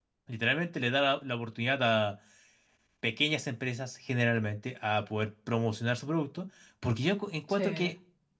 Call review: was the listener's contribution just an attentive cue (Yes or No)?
Yes